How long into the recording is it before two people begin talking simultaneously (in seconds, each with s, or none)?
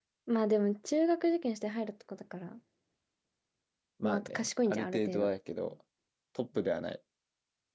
4.0 s